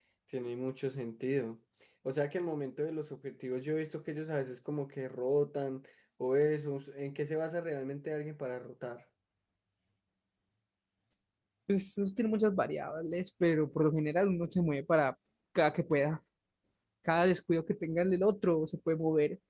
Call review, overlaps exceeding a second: none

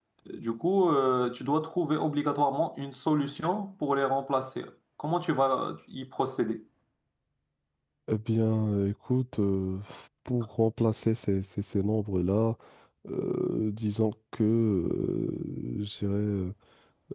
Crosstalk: none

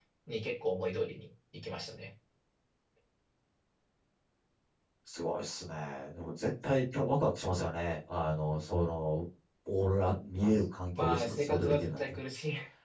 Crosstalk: present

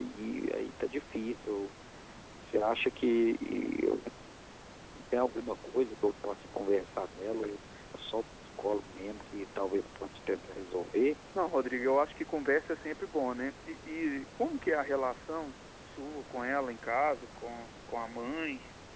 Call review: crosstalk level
none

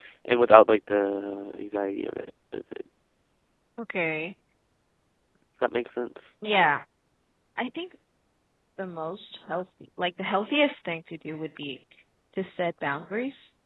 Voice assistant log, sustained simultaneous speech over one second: none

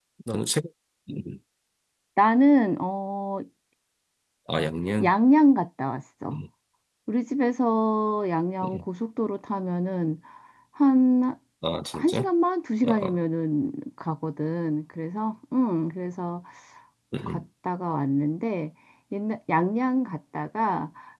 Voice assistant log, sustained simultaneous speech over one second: none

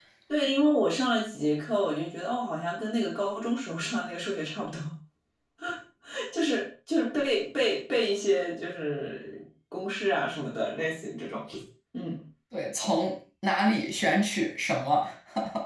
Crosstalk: none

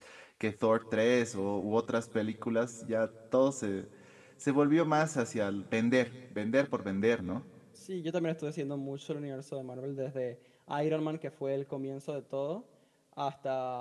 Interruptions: none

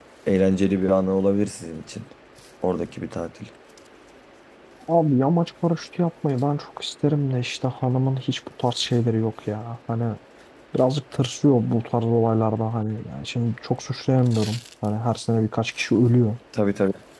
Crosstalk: none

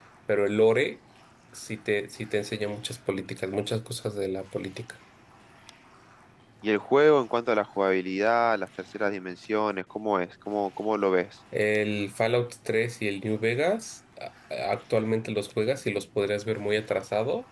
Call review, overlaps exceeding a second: none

